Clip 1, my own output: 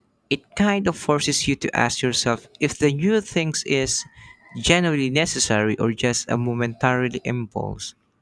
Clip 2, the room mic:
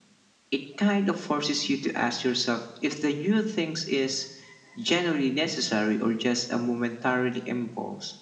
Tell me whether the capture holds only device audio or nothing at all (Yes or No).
Yes